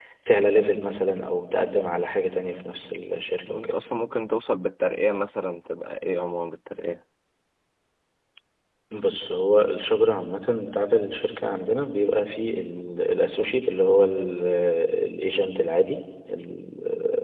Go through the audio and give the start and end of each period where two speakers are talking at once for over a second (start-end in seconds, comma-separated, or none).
none